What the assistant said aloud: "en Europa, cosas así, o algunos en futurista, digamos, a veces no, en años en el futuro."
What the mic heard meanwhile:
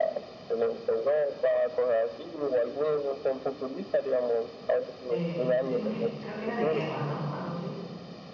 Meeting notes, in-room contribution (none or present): present